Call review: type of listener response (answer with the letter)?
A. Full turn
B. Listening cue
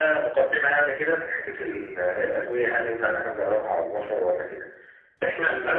B